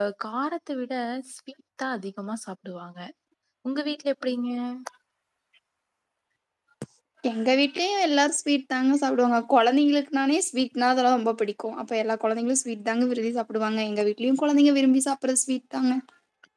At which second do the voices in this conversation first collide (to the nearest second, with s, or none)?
none